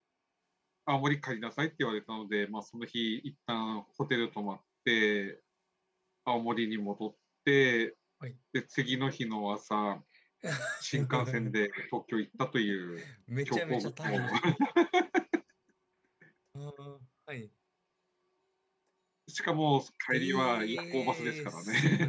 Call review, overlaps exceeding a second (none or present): present